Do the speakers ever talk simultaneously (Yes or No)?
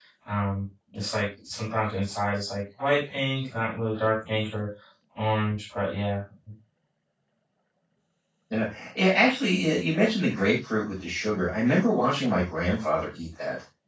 No